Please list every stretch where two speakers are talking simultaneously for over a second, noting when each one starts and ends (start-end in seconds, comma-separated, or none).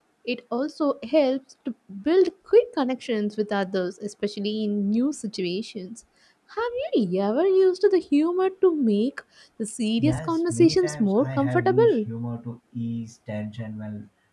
10.0-12.1